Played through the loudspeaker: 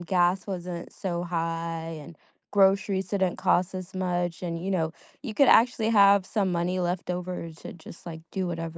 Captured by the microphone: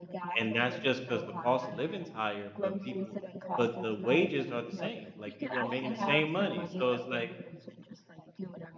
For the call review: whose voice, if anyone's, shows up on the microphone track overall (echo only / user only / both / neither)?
both